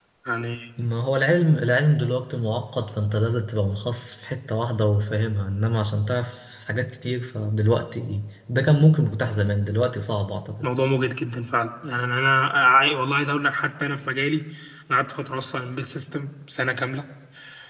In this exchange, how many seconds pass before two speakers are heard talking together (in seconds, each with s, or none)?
none